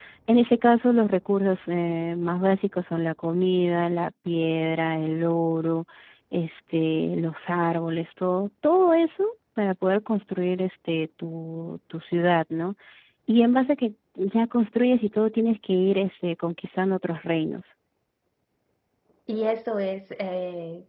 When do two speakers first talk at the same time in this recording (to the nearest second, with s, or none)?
none